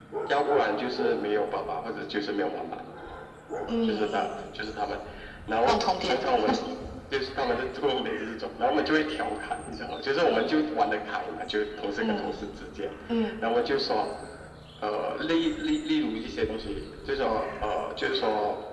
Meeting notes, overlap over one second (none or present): none